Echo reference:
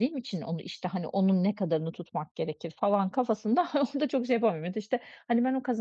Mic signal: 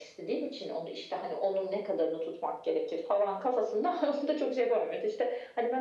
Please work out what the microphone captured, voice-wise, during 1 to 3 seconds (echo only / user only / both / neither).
echo only